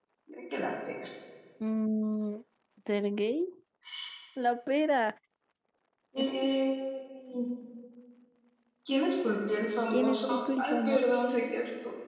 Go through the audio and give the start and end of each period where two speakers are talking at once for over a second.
9.9-11.2

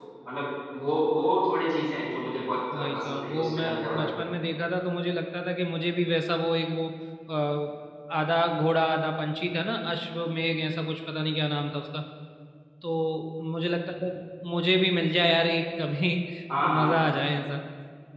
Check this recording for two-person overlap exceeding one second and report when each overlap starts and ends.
2.8-4.2

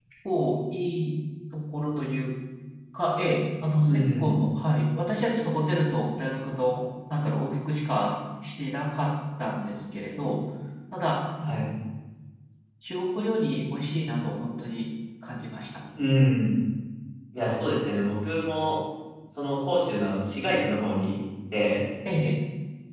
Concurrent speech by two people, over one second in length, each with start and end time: none

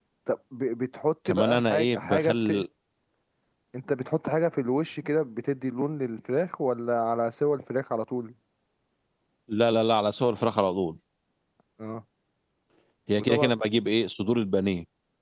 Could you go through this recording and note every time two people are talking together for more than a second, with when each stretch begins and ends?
1.2-2.6

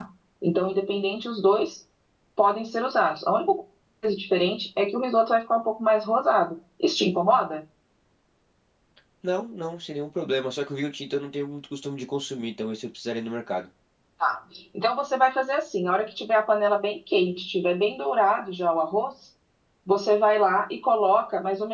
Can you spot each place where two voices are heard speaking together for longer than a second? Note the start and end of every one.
none

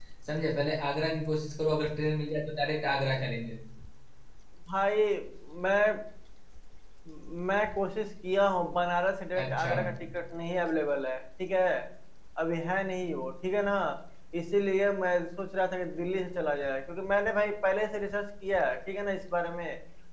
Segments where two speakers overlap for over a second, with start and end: none

